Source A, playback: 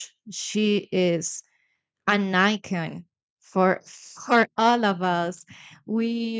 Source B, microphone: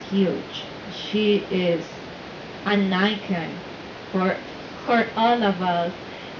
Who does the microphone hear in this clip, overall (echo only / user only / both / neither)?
echo only